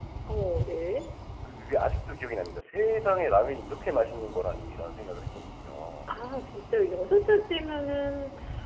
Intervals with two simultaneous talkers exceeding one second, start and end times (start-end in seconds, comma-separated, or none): none